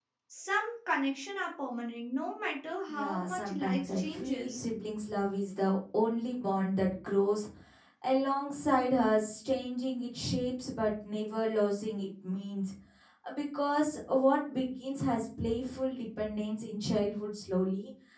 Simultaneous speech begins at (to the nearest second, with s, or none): 3 s